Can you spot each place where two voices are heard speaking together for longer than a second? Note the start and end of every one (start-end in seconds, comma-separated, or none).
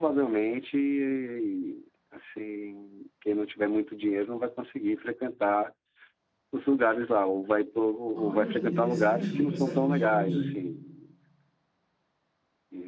8.2-10.4